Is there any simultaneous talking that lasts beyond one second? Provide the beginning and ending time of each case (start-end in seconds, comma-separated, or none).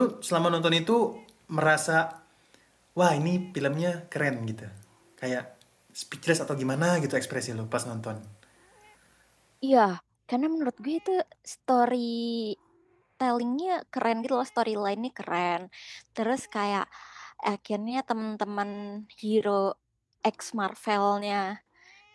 none